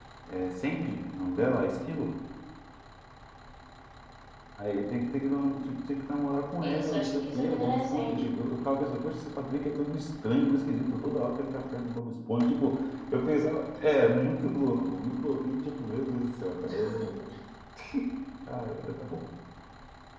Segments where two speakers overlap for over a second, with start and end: 6.6-8.2

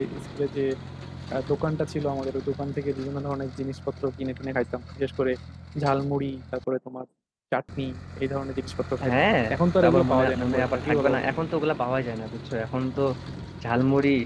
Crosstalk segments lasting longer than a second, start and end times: 9.8-11.3

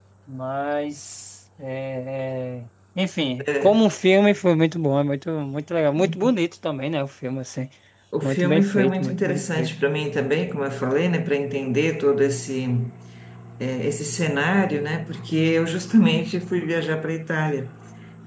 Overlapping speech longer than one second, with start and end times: 8.2-9.7

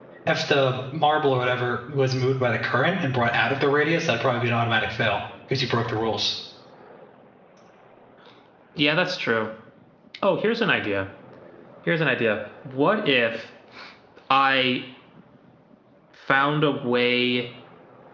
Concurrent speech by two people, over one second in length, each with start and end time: none

